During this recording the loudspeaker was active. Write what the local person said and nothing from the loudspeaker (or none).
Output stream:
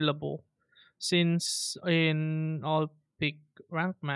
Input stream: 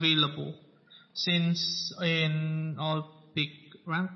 none